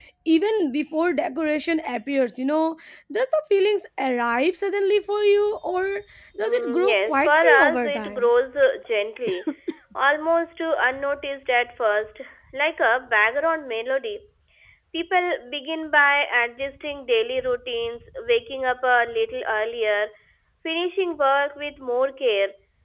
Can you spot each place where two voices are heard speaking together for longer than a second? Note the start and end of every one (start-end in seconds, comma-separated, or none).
6.4-8.3